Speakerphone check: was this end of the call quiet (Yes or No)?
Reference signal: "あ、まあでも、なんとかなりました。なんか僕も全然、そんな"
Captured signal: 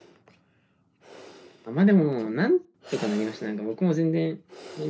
Yes